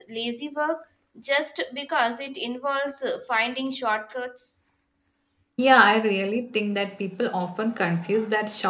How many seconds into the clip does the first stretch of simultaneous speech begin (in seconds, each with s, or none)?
none